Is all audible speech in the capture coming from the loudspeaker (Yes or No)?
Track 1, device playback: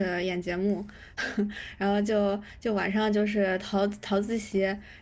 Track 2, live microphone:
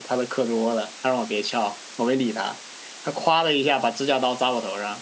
No